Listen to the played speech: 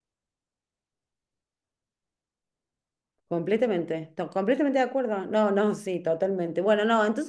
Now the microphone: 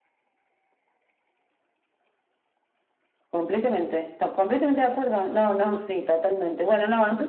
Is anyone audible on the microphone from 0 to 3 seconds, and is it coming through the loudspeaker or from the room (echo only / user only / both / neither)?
neither